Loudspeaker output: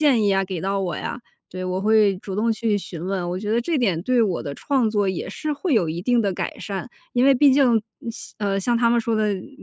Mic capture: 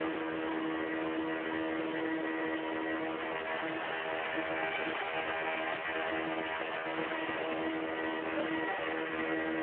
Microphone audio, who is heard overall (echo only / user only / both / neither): neither